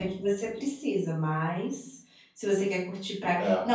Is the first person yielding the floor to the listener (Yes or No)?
No